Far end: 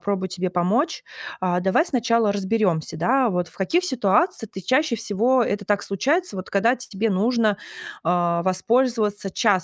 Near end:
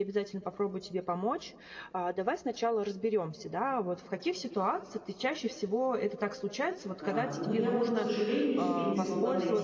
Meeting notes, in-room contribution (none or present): present